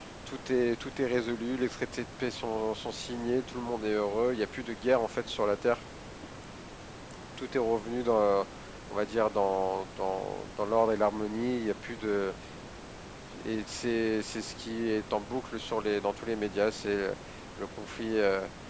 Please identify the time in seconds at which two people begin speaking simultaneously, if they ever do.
none

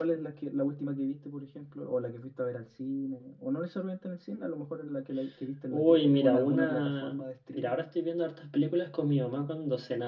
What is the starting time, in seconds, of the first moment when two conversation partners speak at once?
5.7 s

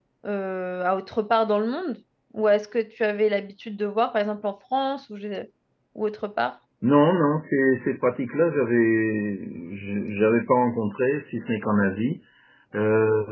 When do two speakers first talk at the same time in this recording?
none

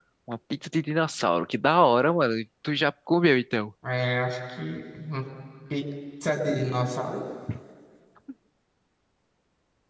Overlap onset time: none

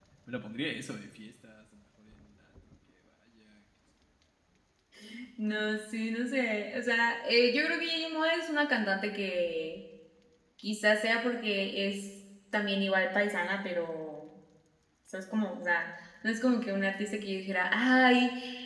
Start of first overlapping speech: none

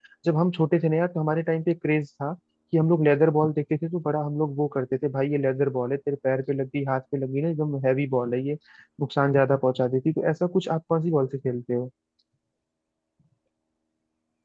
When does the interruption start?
none

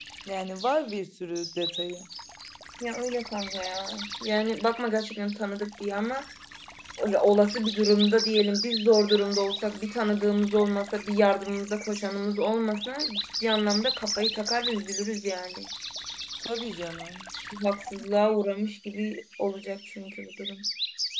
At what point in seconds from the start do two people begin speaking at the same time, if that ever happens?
none

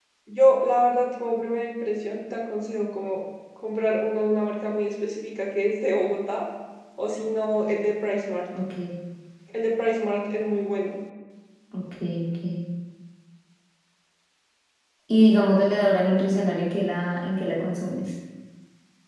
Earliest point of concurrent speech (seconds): none

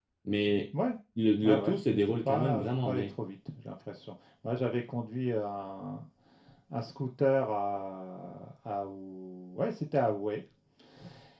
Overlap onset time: 1.4 s

